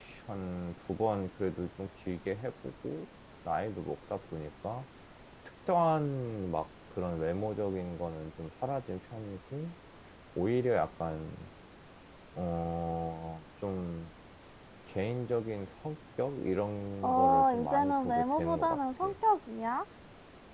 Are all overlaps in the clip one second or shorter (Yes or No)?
No